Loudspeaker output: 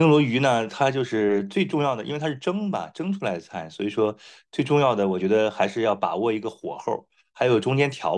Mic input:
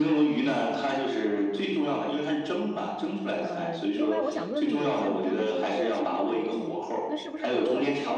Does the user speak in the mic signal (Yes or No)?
Yes